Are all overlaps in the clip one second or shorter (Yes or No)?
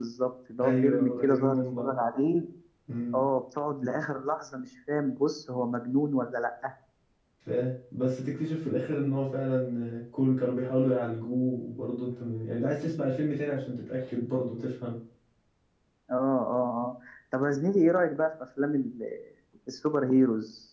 No